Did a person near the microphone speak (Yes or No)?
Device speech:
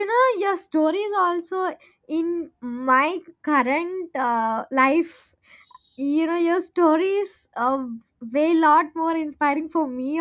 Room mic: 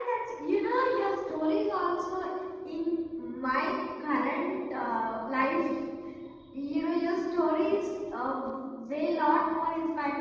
No